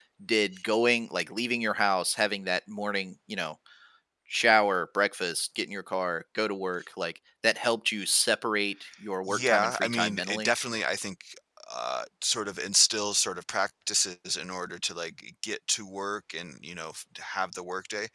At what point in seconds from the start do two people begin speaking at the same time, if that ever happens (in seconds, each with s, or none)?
9.3 s